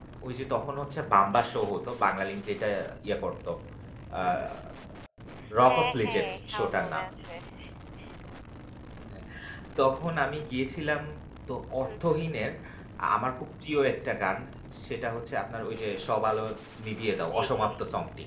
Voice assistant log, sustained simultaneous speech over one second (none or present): present